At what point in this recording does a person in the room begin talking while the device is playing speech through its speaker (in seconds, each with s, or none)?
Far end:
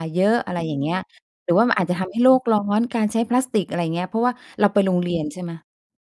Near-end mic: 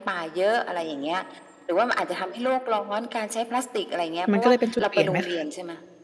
4.3 s